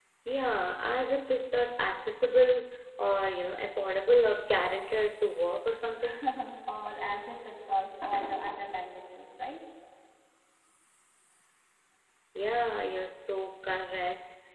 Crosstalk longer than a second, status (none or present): none